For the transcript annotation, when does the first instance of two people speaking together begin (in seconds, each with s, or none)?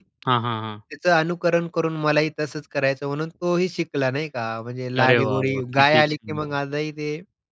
5.0 s